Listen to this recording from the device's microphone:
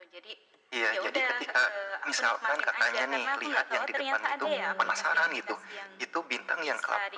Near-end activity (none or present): present